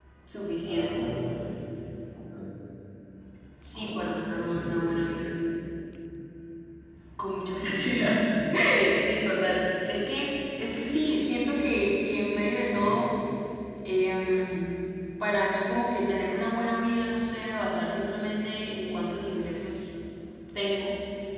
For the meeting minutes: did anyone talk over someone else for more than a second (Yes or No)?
Yes